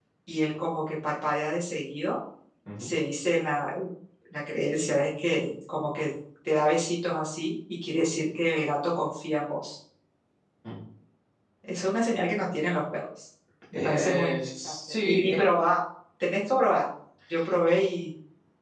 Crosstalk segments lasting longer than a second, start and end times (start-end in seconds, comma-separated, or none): 13.7-15.4